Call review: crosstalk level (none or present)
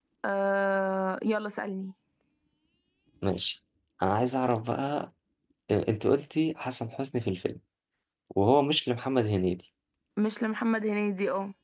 none